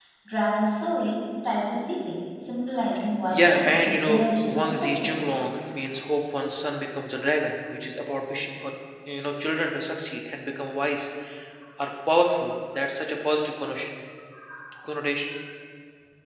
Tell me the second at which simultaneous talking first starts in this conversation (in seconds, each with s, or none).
3.3 s